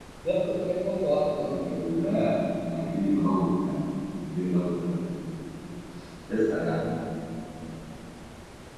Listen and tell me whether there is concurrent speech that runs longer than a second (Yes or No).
No